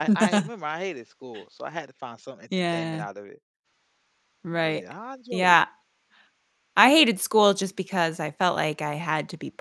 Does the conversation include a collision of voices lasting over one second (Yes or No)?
No